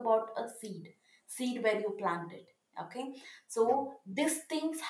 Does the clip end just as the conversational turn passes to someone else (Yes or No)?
No